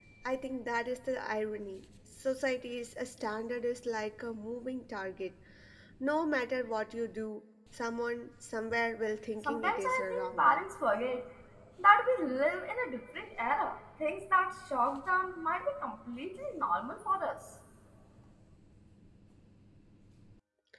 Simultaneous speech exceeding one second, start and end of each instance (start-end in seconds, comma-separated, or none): 9.4-10.7